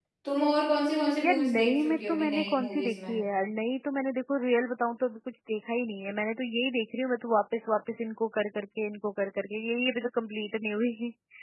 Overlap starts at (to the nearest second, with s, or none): 1 s